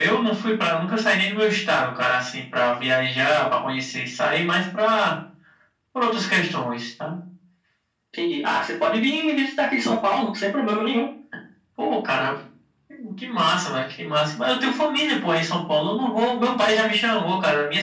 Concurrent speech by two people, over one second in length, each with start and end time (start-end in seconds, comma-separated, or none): none